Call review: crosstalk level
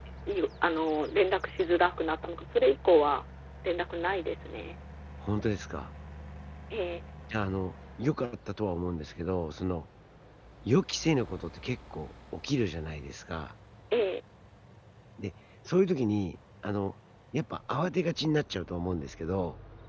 none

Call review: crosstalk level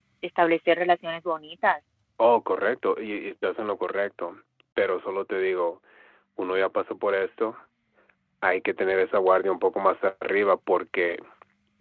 none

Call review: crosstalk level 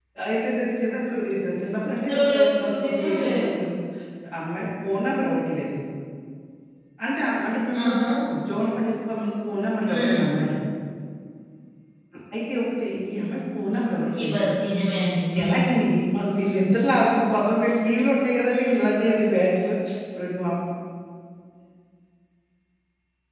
present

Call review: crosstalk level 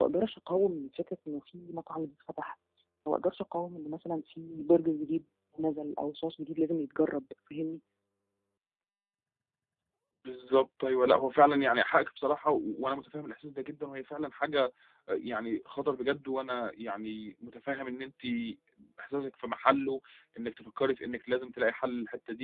none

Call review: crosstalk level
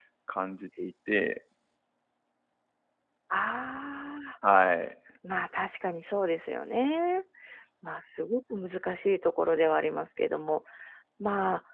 none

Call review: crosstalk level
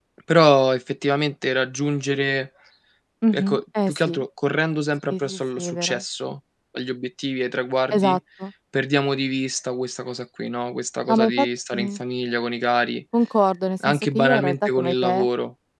present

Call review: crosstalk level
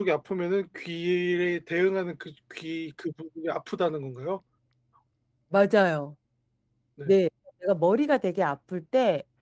none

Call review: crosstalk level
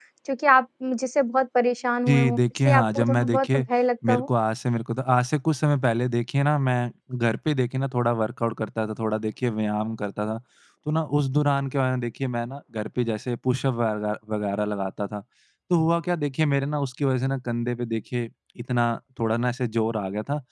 present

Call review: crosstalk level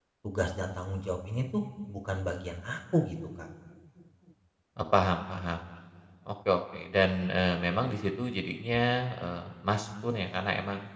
none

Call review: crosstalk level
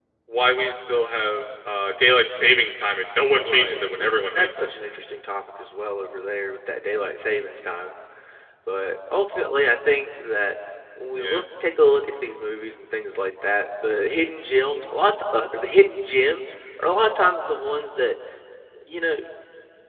present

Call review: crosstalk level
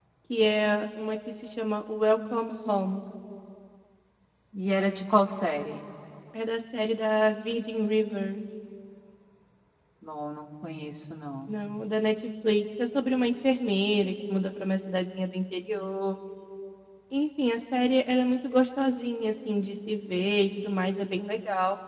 none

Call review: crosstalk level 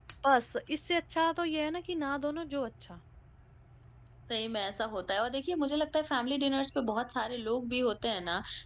none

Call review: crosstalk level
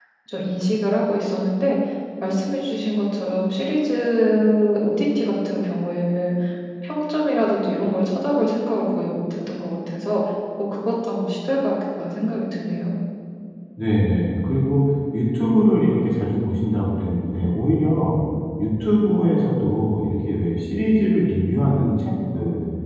none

